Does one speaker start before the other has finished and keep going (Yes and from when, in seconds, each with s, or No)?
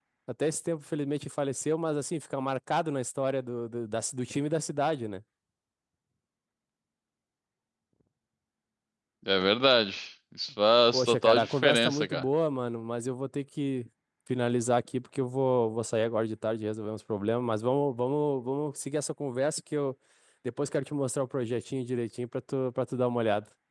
Yes, from 10.9 s